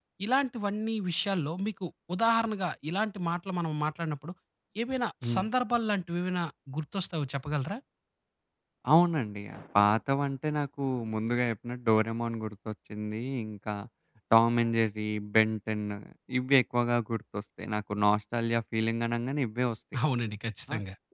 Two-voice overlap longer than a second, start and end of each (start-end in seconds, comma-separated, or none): none